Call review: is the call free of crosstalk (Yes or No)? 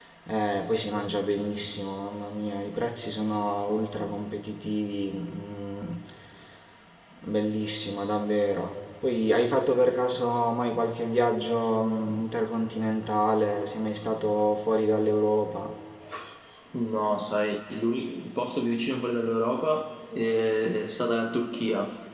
Yes